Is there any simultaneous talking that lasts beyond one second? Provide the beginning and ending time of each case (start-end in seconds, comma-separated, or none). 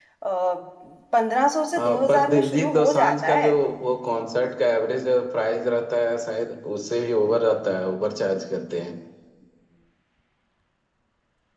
1.8-3.5